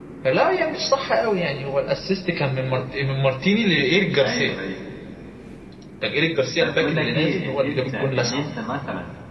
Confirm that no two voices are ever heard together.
No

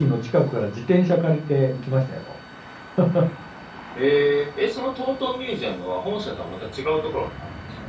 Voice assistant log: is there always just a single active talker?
Yes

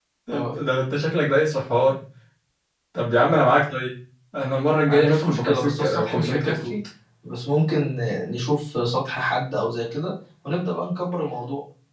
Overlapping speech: Yes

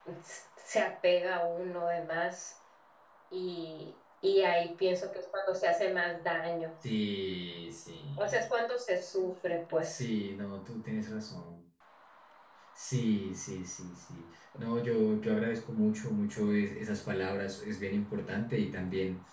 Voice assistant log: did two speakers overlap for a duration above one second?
No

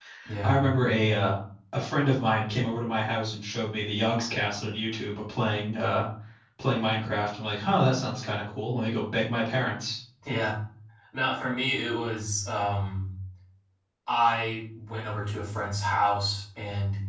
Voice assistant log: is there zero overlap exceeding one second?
Yes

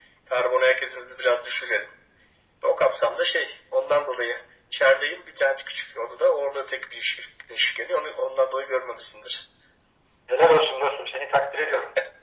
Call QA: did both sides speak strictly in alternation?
Yes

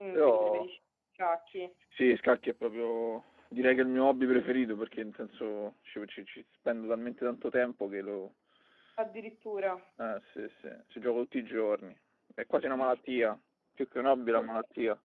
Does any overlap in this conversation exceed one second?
No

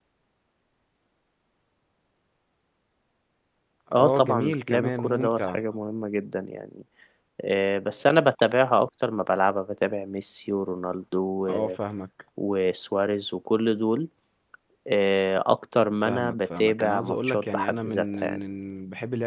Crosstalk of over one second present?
Yes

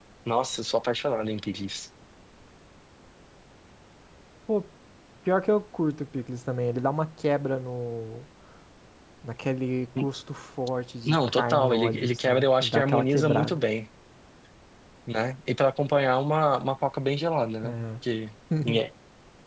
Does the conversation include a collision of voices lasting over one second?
Yes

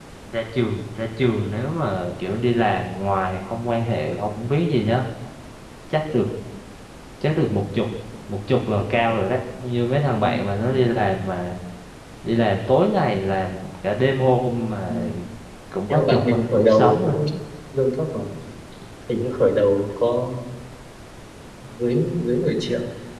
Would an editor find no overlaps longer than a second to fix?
No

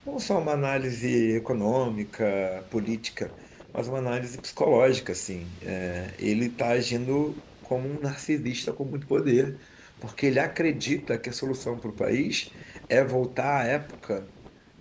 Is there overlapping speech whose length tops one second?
No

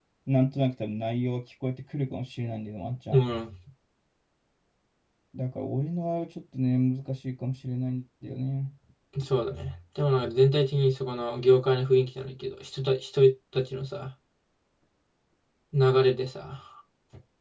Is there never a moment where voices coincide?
Yes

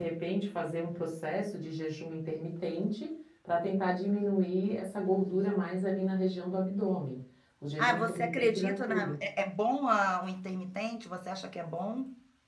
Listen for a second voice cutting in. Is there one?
Yes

